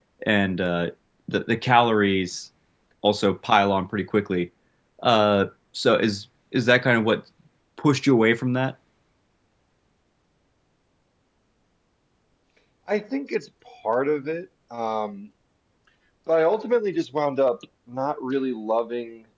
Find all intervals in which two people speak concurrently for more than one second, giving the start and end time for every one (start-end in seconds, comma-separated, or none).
none